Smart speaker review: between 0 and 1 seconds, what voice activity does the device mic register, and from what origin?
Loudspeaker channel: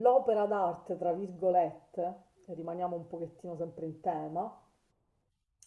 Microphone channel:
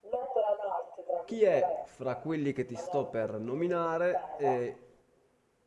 echo only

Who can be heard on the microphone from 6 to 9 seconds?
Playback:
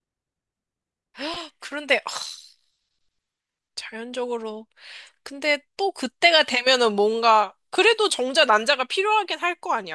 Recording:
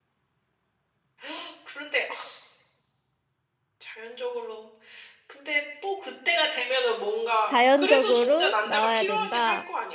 both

